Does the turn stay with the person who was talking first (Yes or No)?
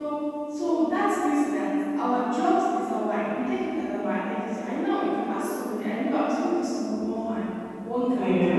Yes